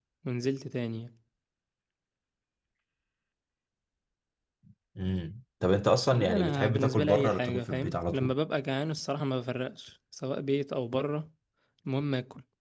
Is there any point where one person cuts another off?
Yes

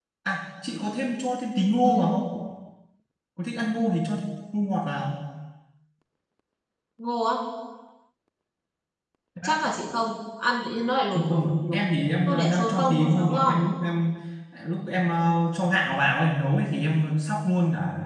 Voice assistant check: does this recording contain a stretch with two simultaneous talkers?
Yes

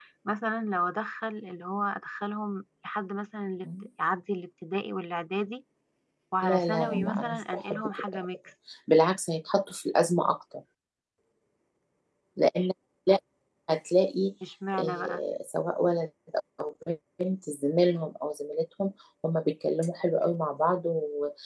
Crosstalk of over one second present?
Yes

